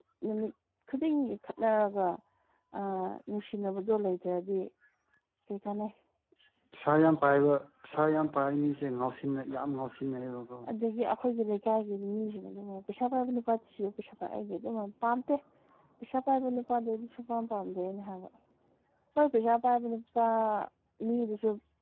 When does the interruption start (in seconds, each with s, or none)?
none